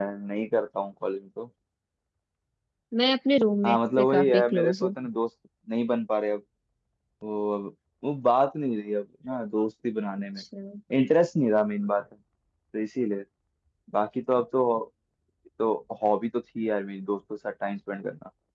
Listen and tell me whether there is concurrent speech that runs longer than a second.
Yes, from 3.6 s

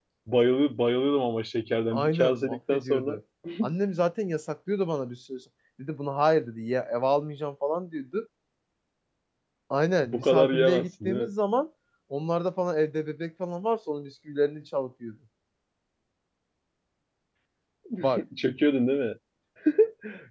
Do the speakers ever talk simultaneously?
Yes, from 1.9 s

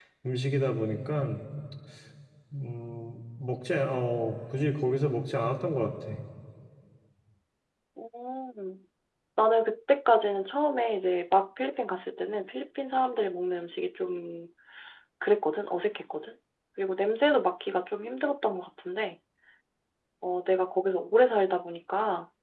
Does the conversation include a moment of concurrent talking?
No

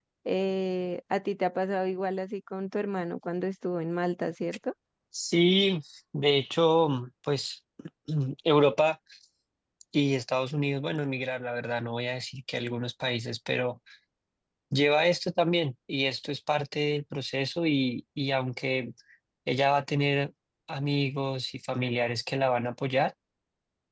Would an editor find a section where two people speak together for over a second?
No

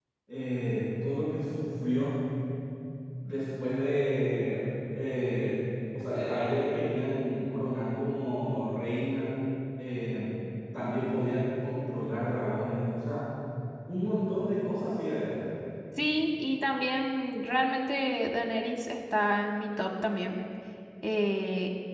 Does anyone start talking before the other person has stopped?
No

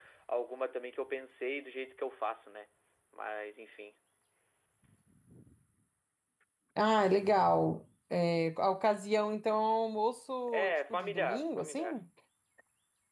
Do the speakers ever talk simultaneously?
Yes, from 10.5 s

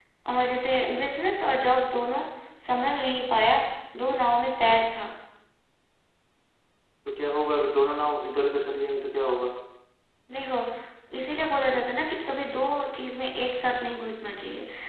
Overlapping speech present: No

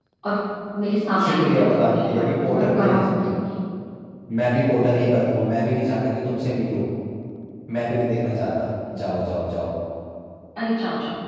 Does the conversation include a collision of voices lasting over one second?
Yes, from 1.2 s

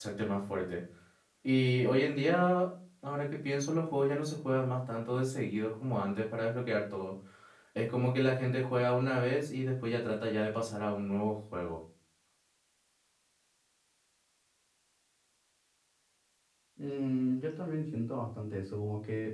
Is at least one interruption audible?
No

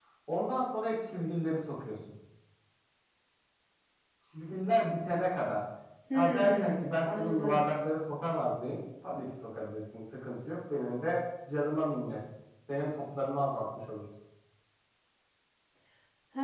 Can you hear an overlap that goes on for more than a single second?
Yes, from 6.1 s

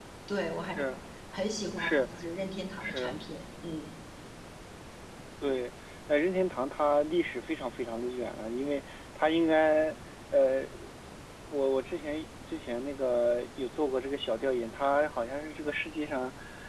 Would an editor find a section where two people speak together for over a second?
No

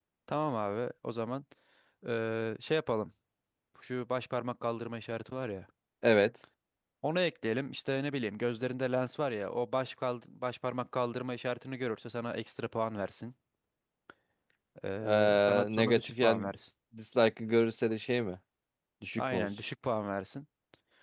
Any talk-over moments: Yes, from 15.0 s

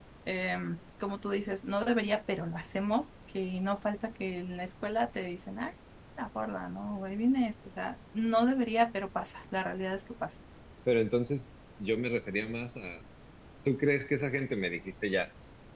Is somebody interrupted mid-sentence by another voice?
No

